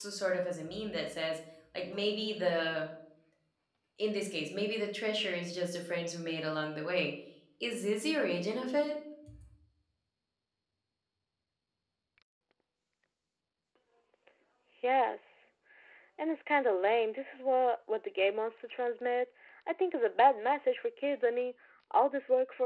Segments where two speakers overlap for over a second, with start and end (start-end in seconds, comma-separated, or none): none